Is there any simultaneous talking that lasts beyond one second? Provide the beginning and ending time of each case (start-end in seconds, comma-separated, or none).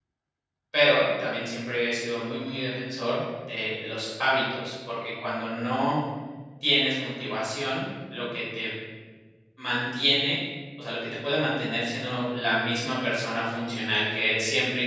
none